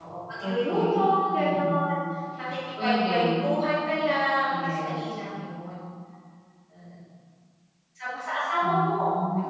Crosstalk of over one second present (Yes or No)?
Yes